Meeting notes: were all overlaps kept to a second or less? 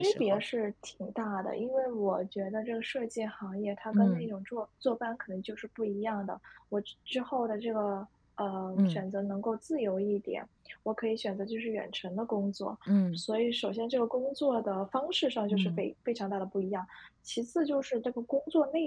Yes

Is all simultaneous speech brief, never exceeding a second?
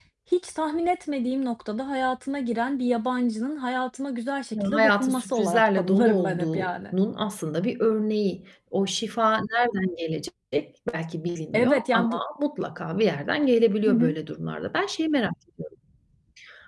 No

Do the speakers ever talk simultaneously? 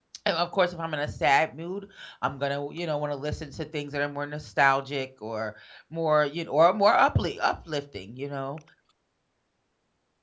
No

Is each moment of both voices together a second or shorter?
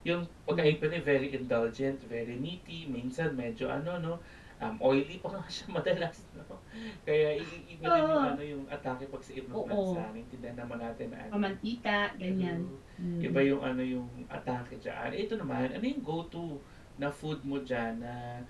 Yes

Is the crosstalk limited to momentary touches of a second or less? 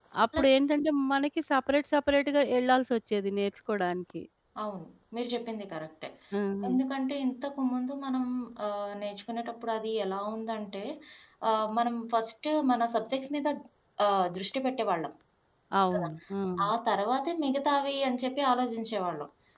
Yes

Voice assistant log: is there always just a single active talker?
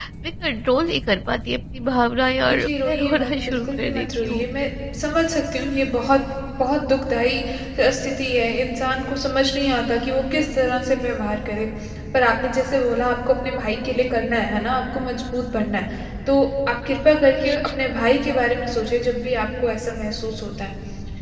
No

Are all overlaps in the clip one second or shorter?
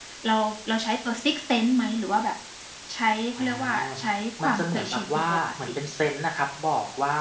No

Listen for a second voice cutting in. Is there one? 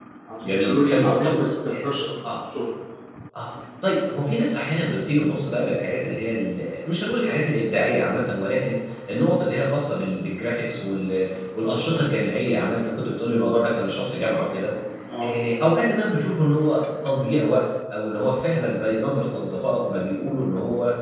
Yes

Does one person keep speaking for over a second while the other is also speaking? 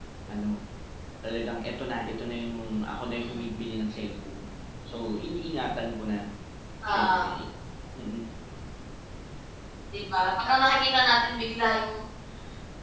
No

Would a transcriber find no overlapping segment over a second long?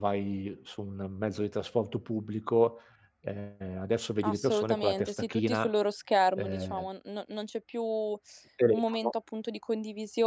No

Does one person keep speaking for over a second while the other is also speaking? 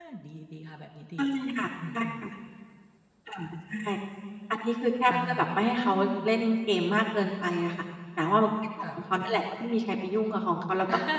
No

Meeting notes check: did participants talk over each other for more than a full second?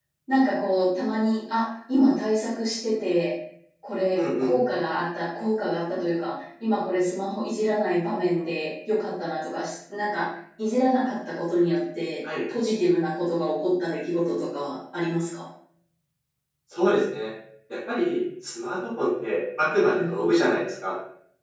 No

